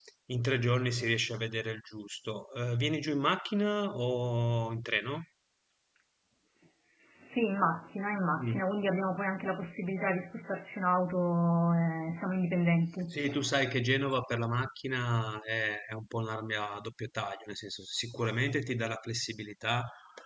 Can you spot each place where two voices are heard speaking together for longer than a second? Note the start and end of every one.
none

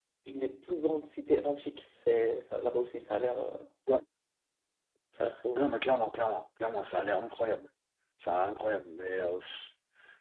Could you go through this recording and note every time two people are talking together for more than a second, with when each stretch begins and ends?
none

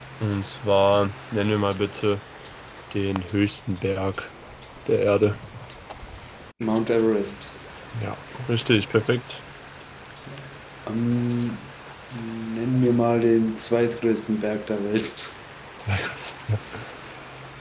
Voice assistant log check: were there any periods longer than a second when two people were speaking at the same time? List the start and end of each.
none

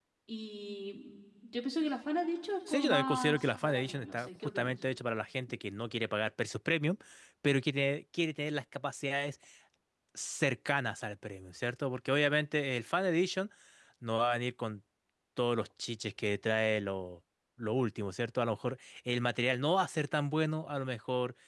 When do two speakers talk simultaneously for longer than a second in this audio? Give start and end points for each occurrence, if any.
2.7-4.7

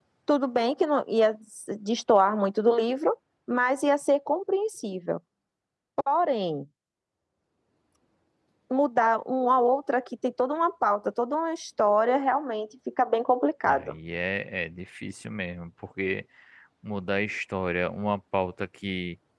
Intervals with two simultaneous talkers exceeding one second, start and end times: none

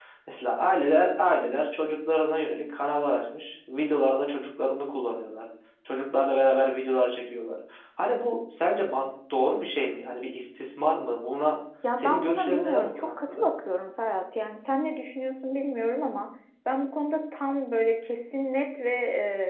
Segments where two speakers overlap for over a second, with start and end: 12.0-13.5

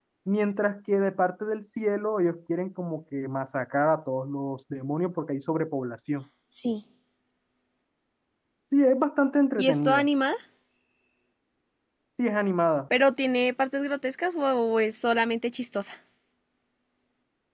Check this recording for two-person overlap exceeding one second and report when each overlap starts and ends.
none

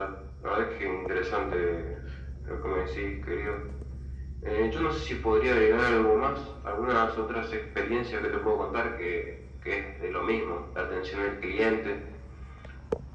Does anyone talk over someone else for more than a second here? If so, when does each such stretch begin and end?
none

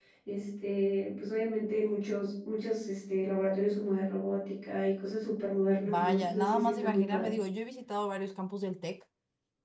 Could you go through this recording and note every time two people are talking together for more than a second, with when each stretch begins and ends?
5.9-7.3

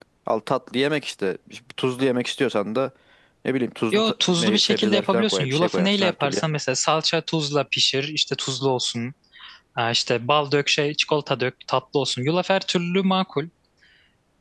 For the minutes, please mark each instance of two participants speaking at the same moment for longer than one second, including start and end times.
3.9-6.5

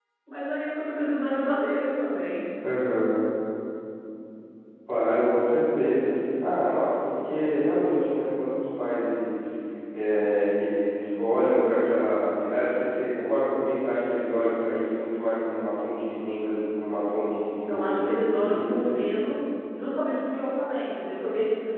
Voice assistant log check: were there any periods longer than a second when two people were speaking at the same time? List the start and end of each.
17.7-19.0

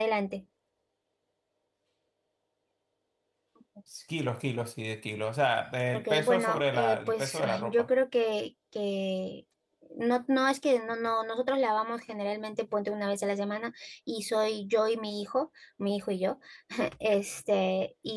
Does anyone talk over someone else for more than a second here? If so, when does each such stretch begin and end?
5.9-7.9

